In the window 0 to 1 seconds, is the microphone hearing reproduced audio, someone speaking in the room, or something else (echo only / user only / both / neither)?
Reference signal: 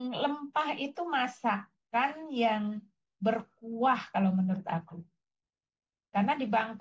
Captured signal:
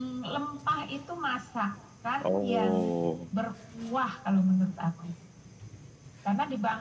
echo only